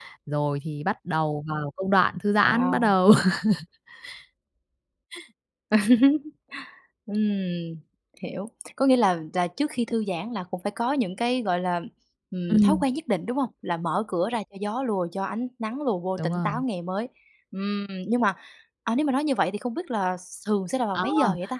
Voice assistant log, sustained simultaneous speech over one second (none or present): none